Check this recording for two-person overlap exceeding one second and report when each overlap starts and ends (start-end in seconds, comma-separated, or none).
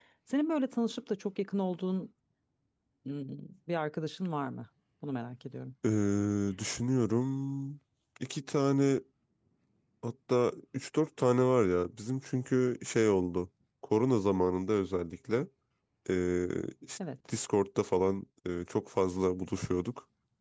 none